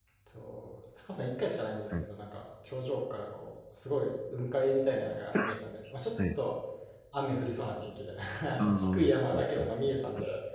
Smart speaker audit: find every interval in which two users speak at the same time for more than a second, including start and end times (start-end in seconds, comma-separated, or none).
8.8-10.0